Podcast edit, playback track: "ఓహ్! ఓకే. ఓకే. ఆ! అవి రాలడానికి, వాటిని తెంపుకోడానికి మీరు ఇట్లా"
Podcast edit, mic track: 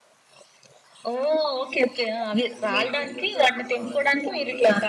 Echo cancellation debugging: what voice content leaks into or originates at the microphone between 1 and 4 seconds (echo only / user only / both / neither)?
both